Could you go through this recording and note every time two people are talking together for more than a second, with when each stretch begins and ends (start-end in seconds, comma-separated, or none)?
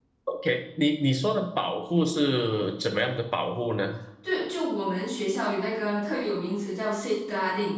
none